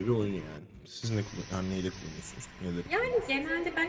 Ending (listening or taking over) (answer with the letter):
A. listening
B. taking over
B